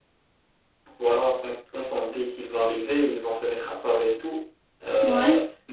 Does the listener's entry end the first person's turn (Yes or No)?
No